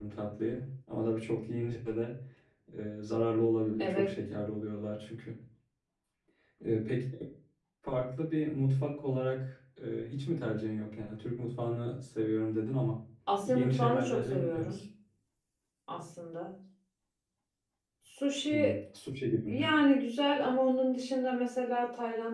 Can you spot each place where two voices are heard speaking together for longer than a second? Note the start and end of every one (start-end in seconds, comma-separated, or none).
13.5-14.8